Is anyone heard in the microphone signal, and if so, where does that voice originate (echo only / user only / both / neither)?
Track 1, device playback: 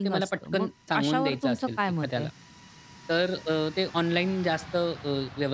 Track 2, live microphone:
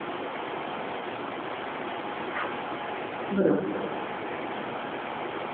user only